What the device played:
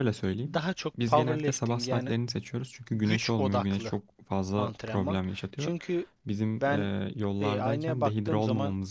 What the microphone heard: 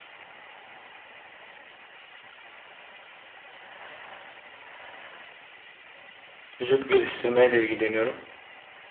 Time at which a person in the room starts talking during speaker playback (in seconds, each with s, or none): 6.6 s